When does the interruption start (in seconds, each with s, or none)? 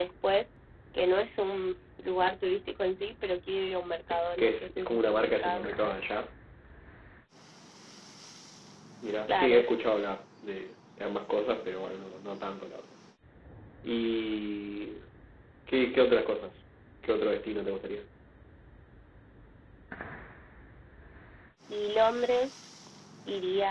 4.1 s